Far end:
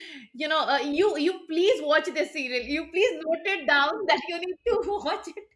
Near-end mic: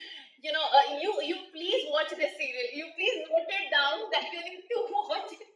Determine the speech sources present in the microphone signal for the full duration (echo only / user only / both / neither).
echo only